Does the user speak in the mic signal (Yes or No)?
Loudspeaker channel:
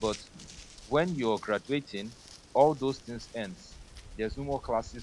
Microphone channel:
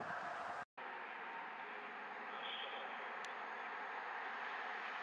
No